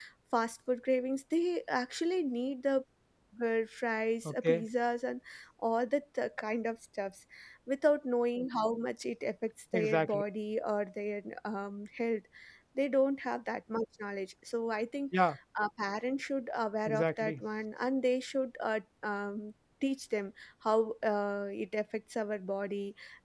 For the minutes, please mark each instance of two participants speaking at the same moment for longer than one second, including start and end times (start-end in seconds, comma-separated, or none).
none